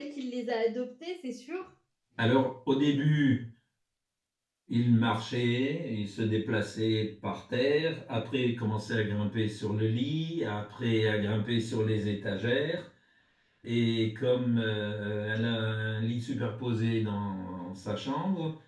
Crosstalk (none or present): none